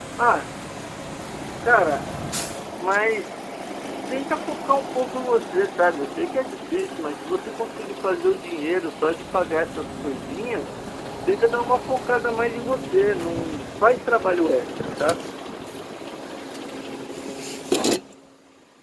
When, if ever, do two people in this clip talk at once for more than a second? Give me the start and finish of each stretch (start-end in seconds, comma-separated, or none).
none